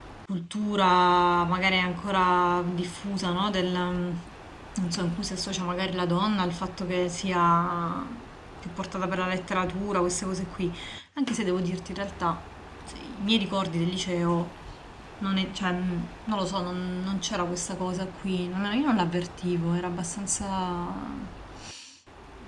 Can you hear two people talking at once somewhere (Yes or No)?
No